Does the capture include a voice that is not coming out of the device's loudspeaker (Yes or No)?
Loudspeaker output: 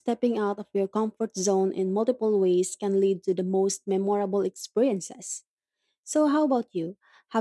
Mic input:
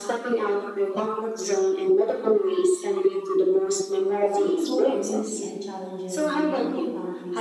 Yes